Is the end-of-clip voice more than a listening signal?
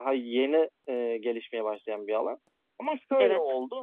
No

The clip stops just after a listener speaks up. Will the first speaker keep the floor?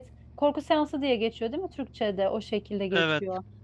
Yes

